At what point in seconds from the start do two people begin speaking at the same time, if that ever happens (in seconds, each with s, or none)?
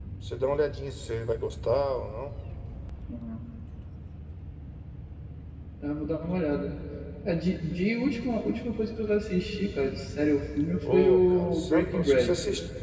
10.8 s